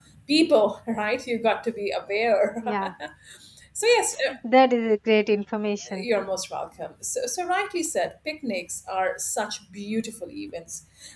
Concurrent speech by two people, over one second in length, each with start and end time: none

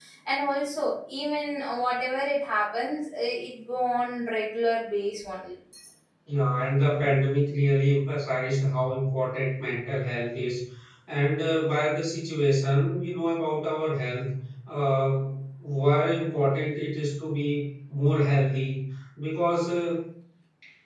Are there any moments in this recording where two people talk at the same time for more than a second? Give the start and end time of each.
none

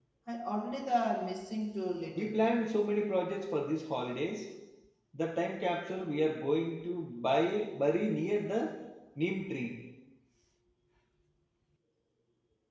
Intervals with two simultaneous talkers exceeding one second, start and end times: none

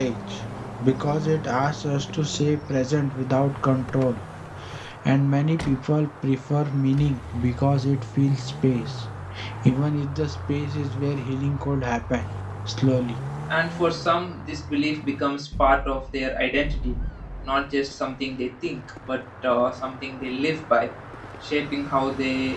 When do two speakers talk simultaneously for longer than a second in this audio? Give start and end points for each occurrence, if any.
none

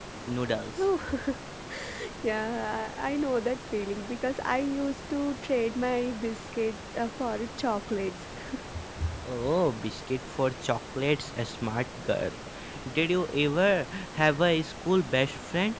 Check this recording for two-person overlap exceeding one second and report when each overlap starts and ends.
none

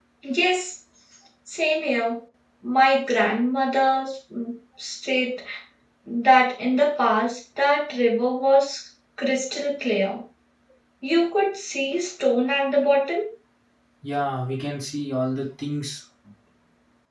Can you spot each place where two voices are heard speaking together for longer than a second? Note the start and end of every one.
none

